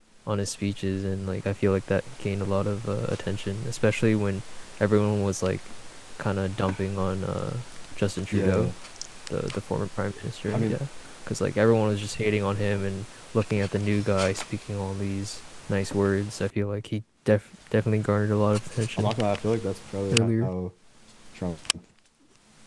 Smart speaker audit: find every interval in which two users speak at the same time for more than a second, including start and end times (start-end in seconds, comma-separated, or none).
none